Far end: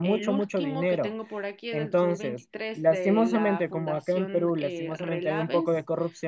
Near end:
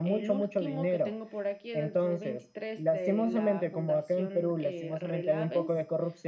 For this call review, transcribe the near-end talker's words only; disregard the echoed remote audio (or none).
none